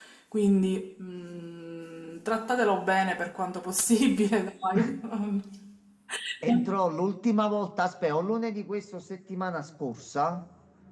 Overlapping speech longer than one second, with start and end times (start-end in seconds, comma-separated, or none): none